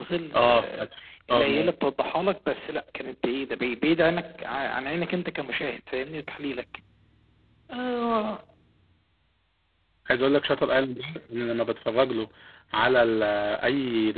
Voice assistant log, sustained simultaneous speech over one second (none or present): none